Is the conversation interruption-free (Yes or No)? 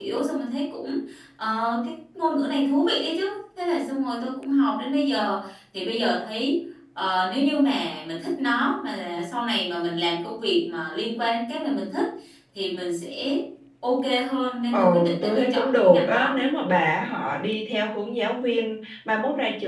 No